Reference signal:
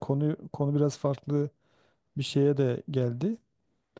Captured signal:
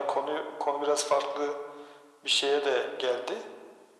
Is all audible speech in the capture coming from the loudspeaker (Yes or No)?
Yes